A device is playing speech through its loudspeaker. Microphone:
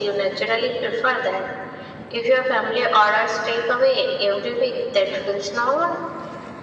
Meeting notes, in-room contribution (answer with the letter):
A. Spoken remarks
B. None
B